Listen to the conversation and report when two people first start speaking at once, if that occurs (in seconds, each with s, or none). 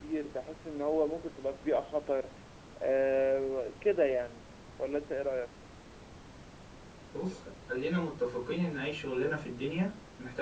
none